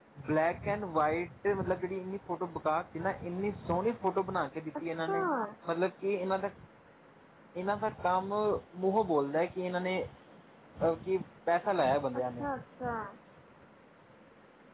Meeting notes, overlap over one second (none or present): none